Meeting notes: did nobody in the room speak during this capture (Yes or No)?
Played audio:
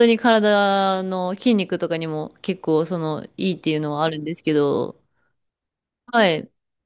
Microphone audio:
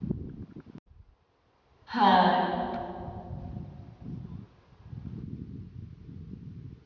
No